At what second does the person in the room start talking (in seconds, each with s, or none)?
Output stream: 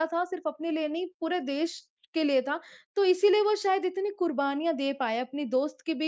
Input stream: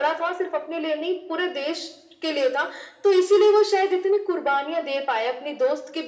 none